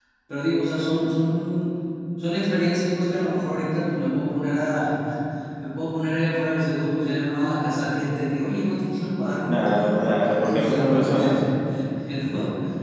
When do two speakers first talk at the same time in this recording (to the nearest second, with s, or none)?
9 s